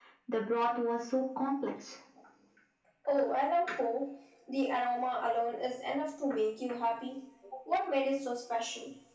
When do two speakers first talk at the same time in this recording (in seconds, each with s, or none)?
none